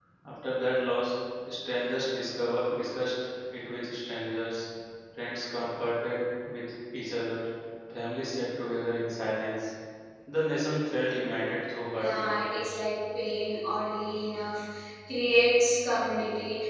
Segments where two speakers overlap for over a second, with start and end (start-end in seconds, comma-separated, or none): none